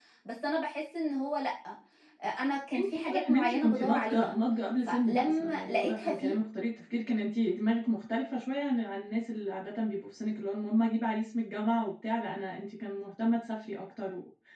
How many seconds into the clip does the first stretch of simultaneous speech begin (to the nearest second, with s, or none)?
3 s